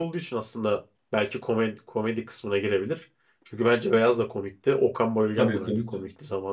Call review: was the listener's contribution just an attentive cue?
No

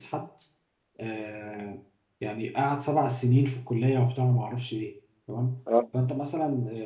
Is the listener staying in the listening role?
Yes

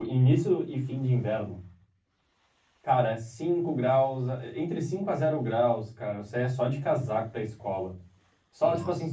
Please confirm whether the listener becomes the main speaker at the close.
No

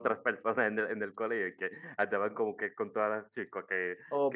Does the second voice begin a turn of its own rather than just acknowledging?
Yes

